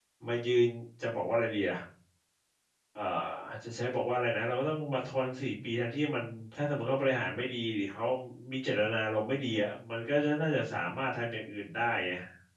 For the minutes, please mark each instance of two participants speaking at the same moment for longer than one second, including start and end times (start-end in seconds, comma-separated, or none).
none